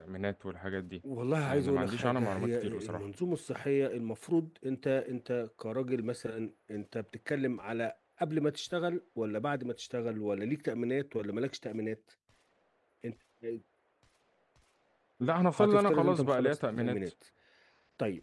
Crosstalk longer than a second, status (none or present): present